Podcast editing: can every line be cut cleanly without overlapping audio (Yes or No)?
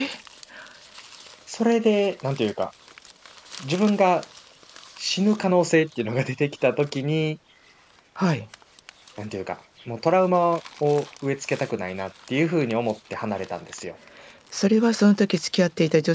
Yes